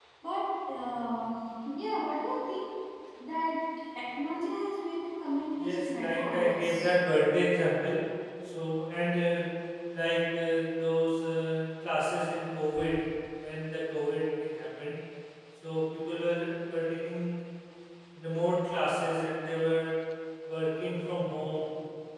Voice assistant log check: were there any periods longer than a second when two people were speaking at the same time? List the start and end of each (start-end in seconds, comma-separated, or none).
5.6-6.9